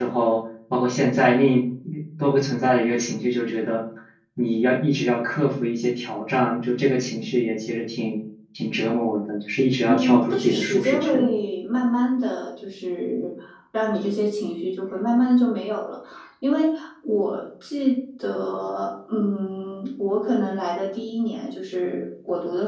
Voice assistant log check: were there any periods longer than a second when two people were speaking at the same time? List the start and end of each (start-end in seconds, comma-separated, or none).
9.9-11.3